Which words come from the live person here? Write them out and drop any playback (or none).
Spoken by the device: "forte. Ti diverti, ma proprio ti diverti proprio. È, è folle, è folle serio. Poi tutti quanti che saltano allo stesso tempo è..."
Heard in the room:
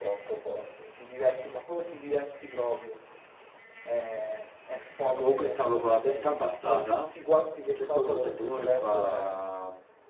Comunque stavo con la testa abbassata, a un certo punto sento uno che fa